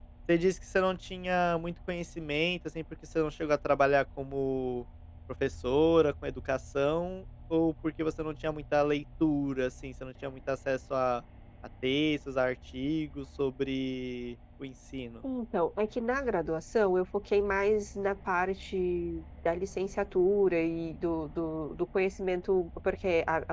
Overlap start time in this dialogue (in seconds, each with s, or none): none